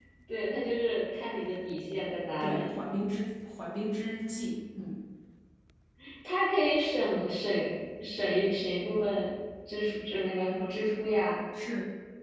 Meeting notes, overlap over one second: none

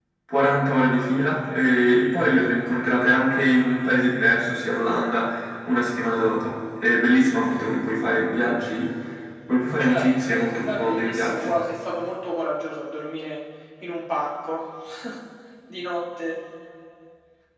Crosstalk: present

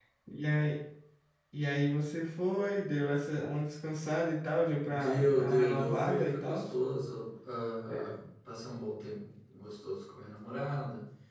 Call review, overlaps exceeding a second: present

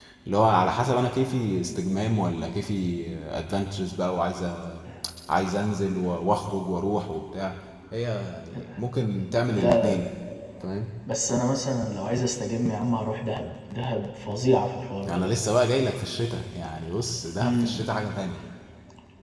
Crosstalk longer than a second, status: none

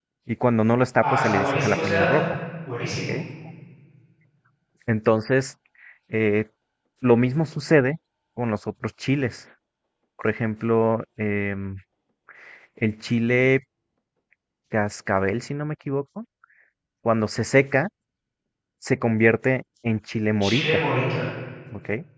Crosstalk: present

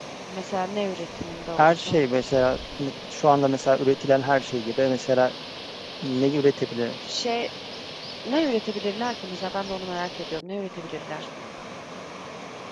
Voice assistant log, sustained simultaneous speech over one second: none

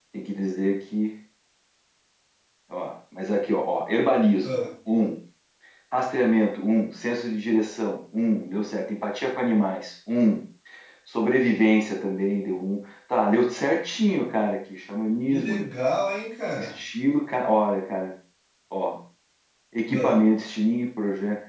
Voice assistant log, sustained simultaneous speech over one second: none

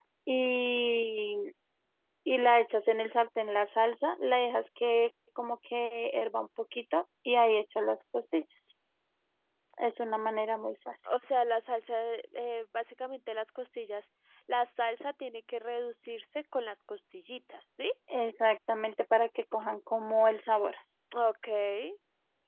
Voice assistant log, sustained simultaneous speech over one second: none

